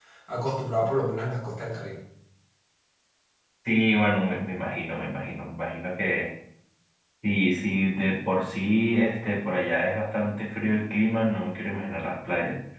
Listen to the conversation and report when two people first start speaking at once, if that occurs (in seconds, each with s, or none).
none